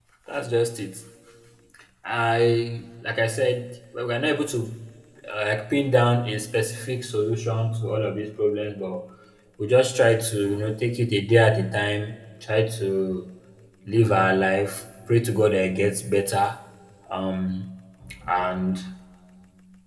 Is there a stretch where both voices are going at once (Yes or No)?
No